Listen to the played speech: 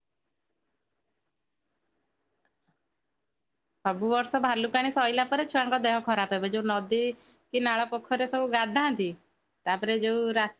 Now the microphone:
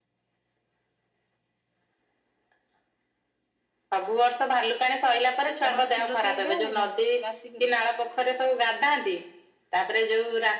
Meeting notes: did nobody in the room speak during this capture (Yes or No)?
No